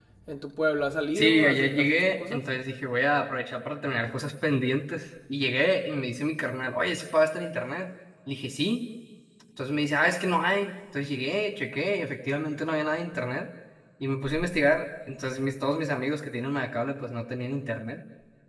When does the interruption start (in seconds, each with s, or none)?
1.1 s